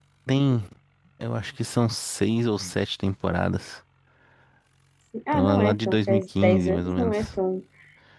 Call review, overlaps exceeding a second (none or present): present